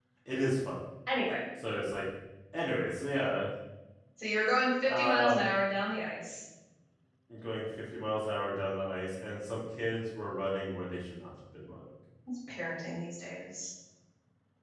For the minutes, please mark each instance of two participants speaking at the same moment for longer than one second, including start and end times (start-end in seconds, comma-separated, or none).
none